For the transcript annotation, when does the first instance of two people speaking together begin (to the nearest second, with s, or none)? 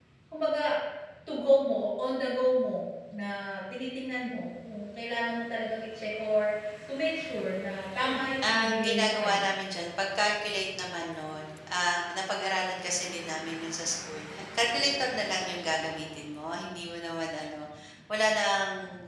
8 s